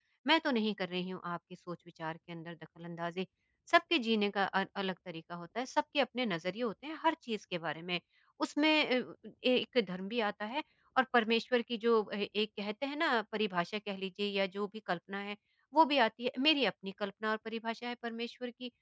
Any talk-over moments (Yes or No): No